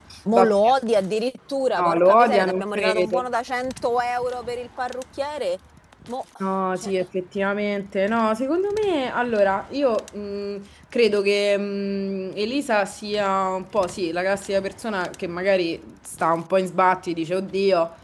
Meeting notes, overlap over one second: present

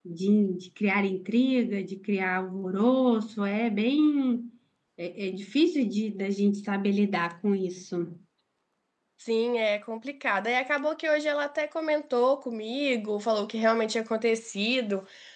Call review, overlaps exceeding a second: none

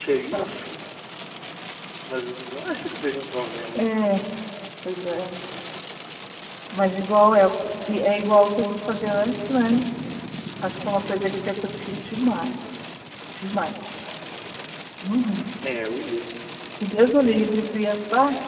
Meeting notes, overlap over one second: none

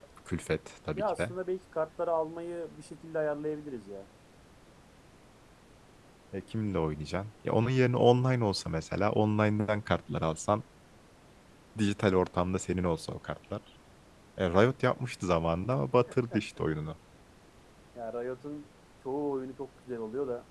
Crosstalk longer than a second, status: none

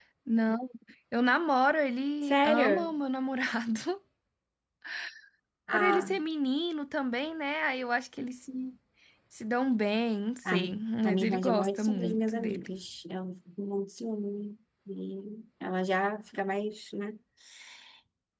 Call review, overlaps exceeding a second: present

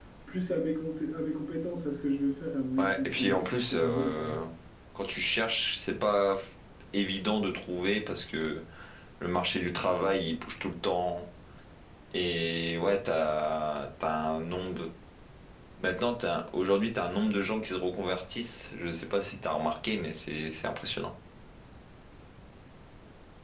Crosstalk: present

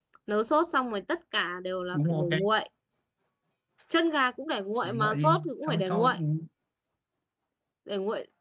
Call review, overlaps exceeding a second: present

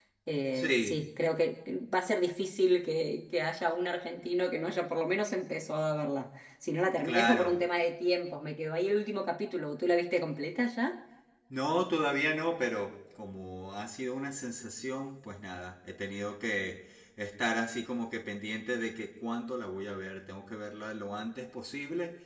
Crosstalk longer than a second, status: none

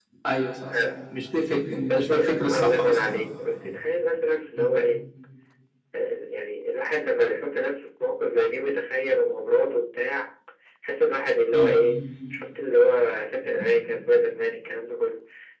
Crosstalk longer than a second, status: present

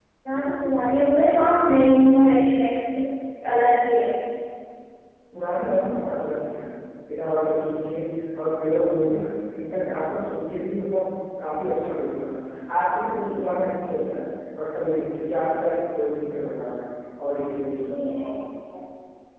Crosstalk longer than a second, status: none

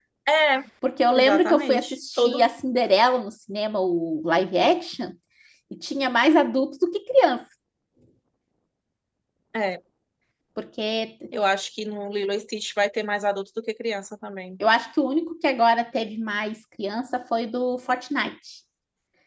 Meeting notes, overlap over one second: present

